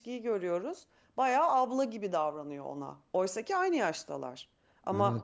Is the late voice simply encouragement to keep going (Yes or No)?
Yes